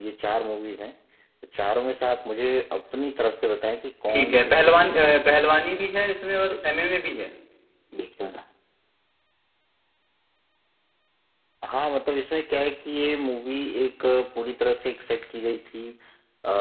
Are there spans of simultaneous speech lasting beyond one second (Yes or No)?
Yes